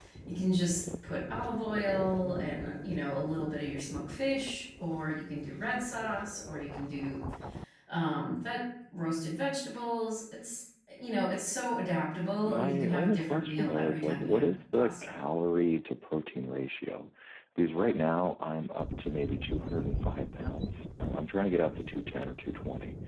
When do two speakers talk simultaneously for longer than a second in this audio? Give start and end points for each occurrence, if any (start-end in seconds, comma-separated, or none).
12.4-15.2